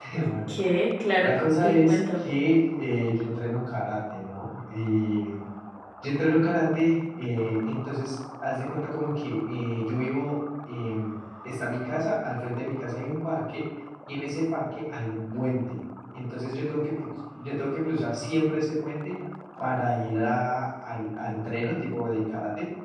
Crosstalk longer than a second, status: present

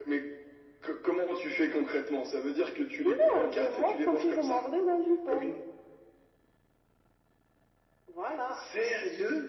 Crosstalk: present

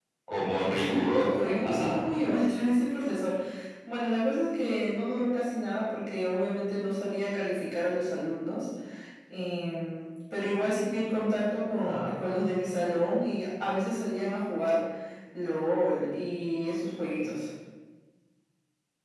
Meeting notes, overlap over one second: present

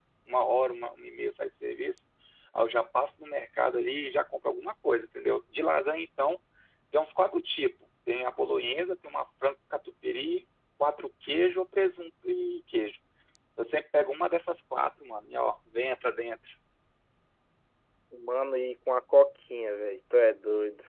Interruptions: none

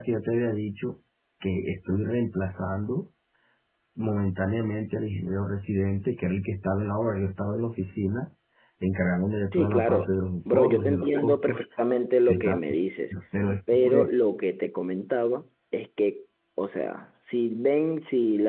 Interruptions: present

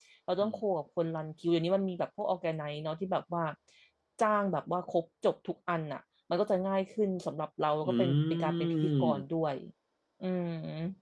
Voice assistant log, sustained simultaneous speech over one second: present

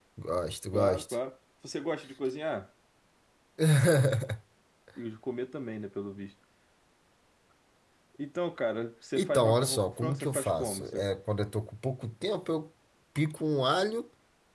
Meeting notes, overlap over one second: present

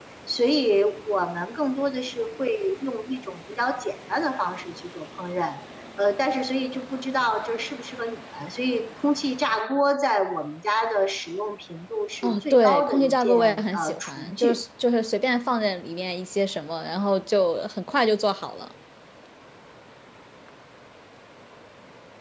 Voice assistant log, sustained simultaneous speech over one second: present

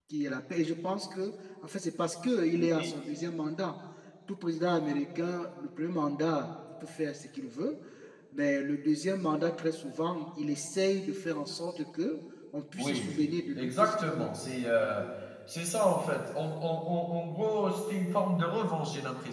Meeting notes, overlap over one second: present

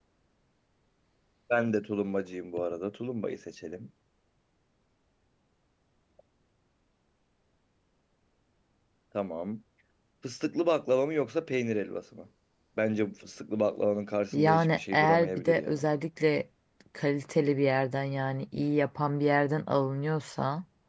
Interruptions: present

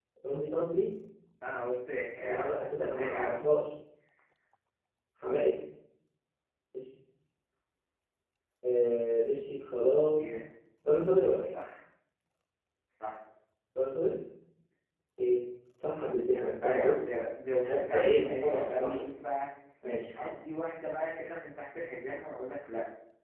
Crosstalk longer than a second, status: present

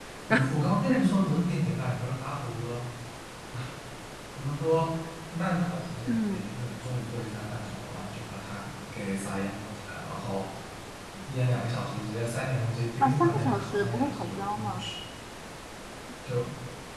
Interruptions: present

